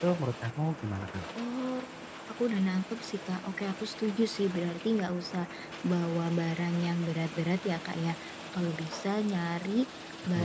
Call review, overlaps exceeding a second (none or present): none